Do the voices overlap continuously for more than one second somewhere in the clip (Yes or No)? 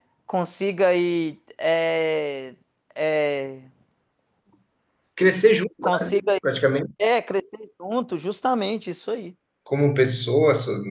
No